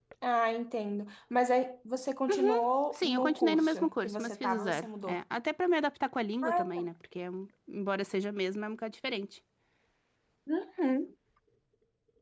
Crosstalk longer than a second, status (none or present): present